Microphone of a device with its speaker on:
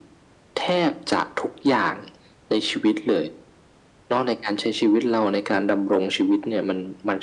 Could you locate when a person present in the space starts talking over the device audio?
none

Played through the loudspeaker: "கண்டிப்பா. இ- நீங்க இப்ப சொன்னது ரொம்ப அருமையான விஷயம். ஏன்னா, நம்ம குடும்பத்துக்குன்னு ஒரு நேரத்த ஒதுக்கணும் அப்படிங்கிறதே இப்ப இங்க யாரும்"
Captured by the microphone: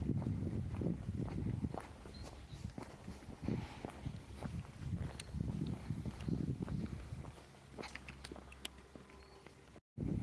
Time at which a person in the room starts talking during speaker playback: none

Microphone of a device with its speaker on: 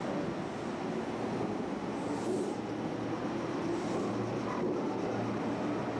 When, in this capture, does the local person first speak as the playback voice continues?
none

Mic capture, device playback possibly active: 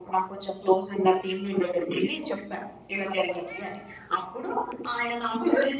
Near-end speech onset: none

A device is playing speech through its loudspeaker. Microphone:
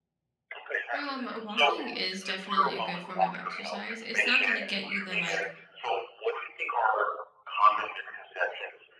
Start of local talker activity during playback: 0.9 s

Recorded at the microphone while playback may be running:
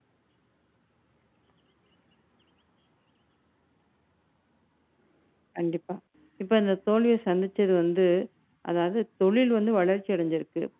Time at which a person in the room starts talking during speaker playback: 5.6 s

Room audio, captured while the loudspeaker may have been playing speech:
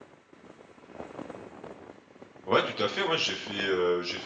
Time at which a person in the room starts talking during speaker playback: 2.4 s

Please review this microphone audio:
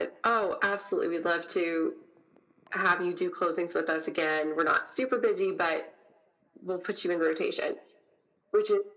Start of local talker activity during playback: none

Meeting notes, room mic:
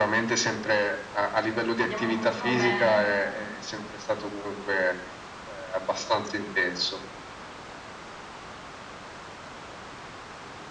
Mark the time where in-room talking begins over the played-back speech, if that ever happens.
1.8 s

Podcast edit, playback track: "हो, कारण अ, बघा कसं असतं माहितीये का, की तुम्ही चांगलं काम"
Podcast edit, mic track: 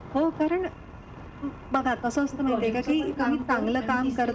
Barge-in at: 2.3 s

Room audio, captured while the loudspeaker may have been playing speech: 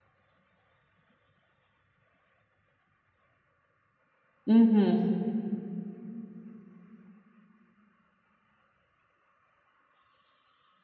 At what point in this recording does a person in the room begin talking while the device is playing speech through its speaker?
4.4 s

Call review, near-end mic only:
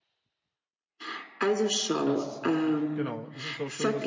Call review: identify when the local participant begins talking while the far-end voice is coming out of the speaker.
2.0 s

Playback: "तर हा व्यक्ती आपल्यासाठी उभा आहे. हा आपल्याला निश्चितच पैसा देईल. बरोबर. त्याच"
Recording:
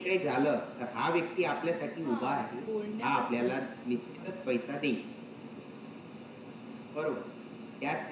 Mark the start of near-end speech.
2.0 s

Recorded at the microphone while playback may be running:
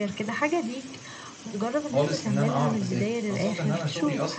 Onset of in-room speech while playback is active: 1.9 s

